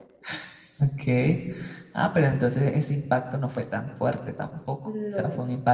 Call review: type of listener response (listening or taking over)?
listening